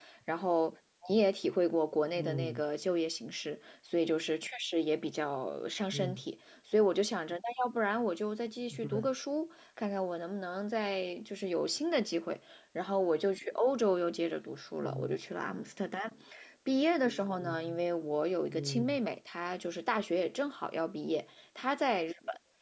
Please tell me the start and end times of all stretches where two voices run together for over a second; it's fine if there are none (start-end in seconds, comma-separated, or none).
none